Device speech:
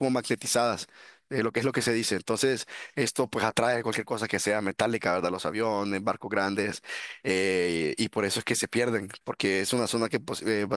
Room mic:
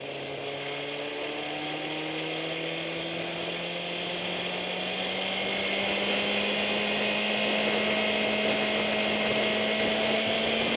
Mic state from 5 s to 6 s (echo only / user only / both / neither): neither